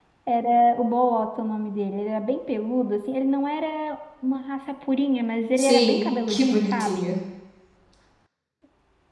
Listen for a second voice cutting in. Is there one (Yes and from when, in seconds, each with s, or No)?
Yes, from 5.6 s